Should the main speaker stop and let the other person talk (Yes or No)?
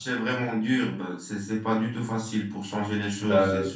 No